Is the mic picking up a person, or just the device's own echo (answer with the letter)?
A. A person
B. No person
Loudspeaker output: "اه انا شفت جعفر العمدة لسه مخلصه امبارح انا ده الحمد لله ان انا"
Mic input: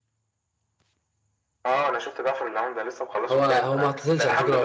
A